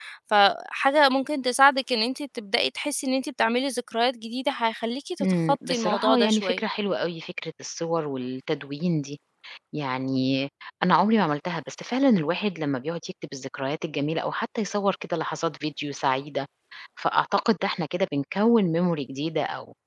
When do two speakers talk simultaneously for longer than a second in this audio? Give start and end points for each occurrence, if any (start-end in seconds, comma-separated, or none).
5.2-6.6